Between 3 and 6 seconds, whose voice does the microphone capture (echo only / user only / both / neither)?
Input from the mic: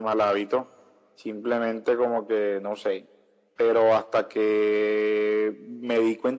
echo only